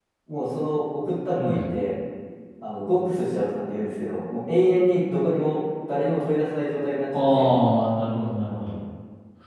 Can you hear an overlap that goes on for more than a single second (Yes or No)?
No